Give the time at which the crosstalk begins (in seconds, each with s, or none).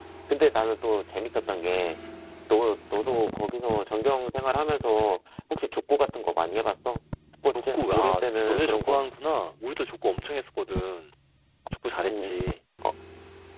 7.5 s